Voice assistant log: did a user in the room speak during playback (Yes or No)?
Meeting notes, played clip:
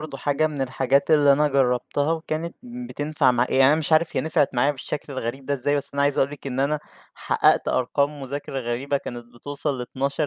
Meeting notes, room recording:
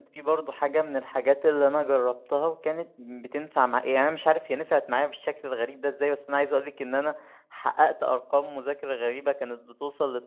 No